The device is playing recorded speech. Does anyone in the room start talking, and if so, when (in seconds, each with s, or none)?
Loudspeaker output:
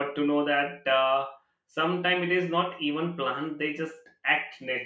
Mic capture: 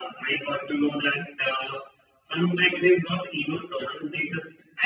none